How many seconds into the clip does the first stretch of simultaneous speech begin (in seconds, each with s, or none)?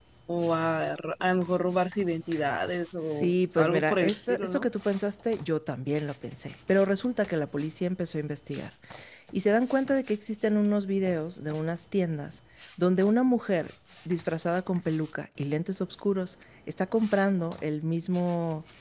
3.0 s